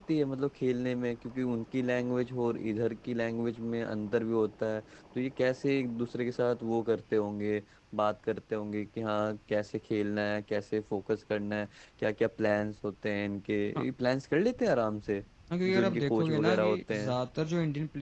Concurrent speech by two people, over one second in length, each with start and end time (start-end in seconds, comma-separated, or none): 15.7-17.2